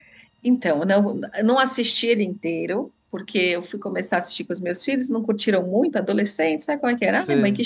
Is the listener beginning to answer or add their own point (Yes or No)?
No